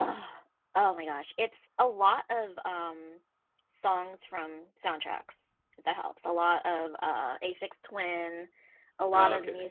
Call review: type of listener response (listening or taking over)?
listening